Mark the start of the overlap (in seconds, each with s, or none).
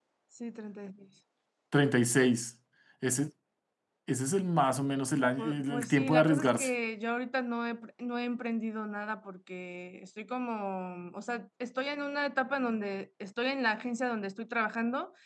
5.4 s